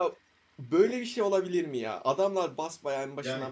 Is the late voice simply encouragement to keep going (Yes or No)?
No